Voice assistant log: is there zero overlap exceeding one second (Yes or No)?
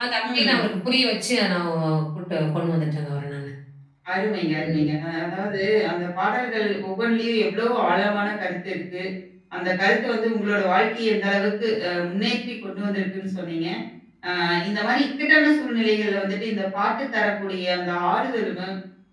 Yes